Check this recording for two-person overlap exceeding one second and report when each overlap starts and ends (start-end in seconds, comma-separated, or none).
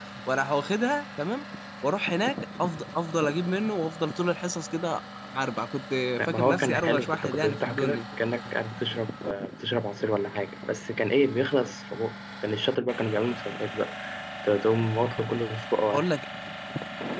6.2-8.0